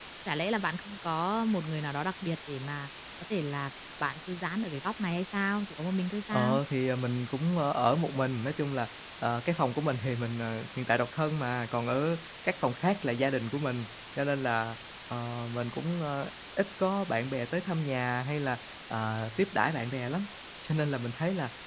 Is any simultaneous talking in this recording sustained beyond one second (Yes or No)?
No